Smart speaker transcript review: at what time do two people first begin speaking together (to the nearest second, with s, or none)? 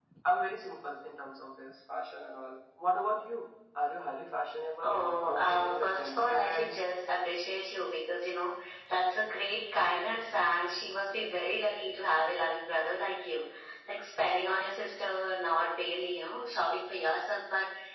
5 s